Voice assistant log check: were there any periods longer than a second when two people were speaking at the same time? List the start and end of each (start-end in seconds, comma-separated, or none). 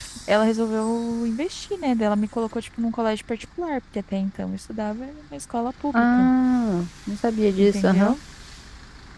none